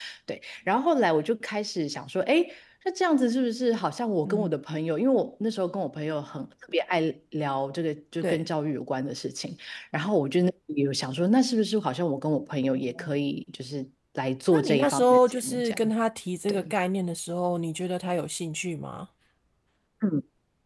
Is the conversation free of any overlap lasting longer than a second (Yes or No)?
No